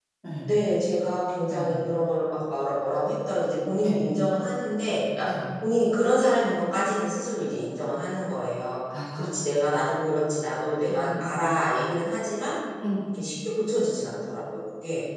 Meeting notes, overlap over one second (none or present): none